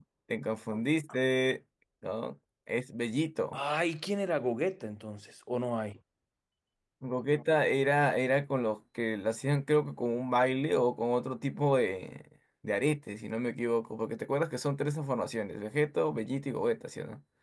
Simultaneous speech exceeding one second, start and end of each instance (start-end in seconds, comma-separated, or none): none